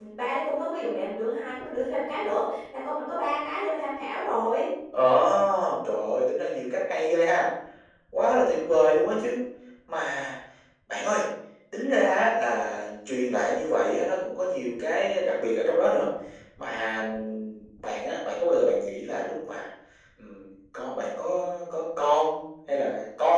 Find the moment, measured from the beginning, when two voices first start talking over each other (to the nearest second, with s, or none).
none